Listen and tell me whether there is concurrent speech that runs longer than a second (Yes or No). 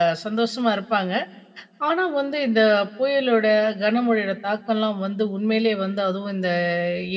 No